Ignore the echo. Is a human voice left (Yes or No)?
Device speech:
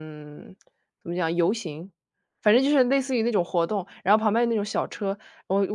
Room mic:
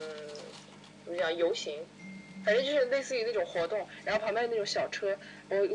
No